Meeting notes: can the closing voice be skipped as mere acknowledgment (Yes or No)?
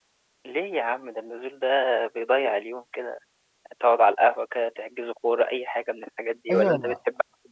No